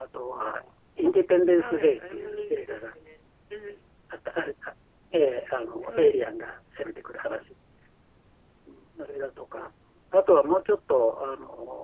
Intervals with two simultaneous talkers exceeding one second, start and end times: 1.6-2.8

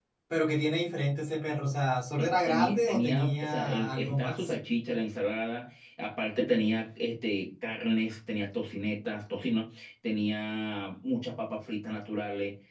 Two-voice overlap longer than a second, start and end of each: 2.2-4.5

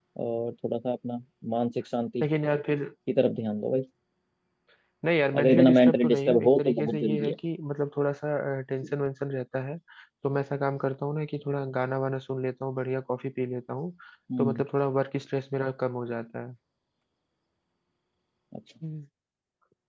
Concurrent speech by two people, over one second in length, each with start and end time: 5.4-7.3

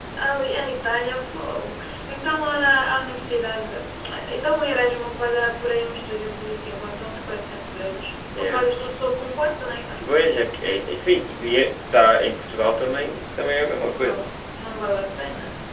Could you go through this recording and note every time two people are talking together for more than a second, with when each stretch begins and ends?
none

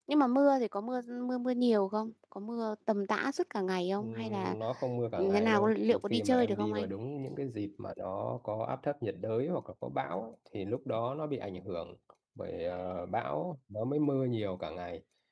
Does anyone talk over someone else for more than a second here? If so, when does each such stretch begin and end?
5.2-6.9

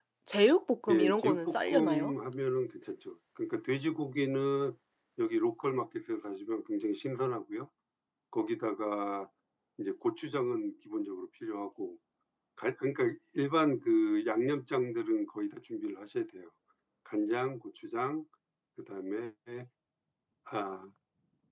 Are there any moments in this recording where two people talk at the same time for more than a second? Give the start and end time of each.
0.9-2.1

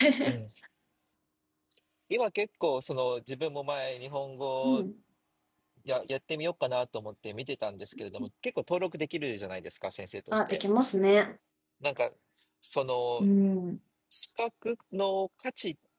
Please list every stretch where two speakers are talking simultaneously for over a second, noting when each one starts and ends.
none

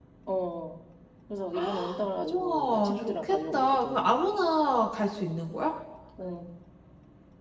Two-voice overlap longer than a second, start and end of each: 2.2-4.1

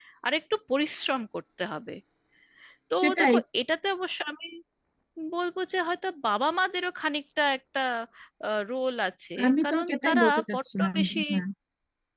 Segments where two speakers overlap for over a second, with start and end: 9.4-11.2

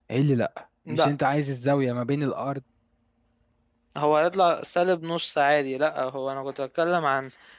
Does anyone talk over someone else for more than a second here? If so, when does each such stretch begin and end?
none

